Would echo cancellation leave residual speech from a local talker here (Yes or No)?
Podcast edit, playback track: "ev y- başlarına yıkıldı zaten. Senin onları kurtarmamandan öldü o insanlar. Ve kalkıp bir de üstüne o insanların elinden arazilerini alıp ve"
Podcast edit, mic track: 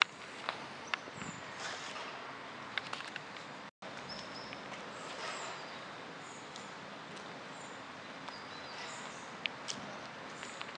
No